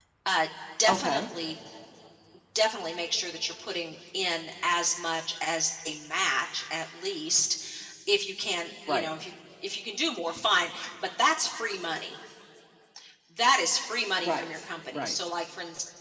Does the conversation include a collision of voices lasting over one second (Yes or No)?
No